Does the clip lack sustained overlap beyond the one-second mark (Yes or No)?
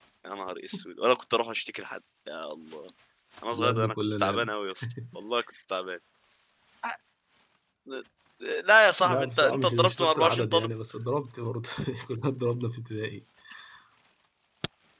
No